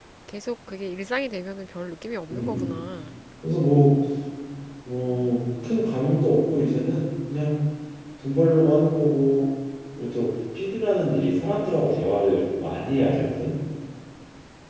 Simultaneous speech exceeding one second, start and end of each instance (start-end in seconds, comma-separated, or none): none